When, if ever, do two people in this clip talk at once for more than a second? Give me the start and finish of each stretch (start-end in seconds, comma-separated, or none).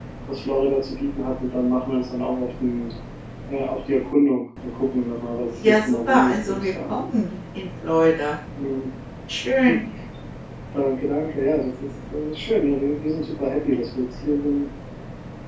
5.7-7.0